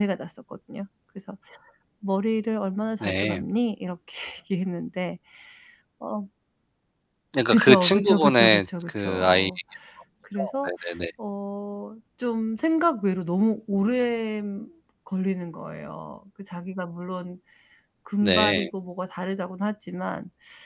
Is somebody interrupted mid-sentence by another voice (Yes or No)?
Yes